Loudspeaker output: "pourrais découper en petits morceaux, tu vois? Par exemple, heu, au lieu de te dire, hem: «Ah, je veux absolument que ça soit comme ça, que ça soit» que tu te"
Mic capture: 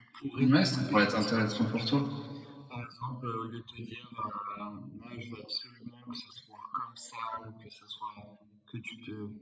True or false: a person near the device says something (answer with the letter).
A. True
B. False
A